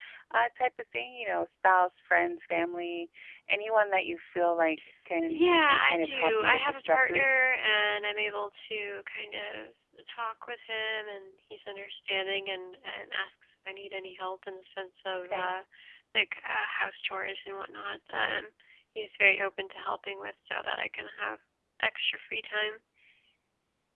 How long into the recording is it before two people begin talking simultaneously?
5.3 s

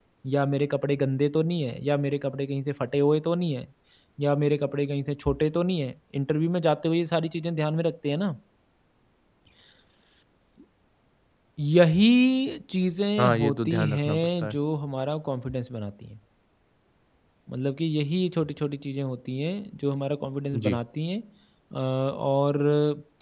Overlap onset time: 13.2 s

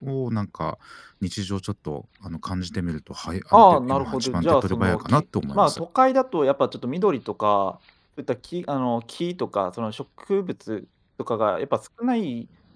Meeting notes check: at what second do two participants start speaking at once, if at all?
3.5 s

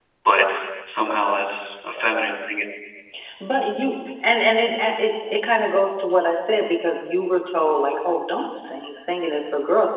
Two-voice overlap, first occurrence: none

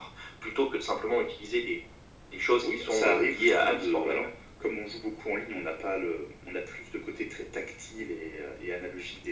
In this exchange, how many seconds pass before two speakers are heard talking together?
2.6 s

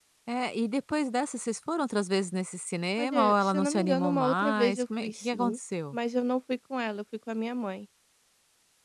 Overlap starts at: 3.0 s

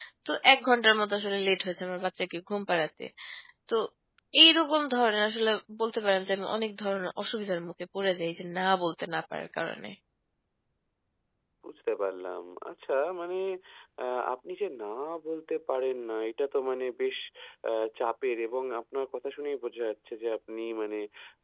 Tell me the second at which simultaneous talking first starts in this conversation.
none

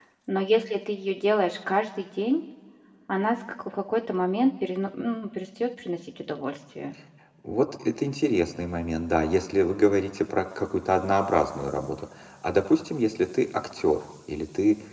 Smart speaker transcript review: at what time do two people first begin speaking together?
none

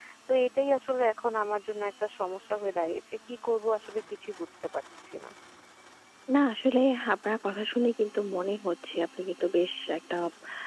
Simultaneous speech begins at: none

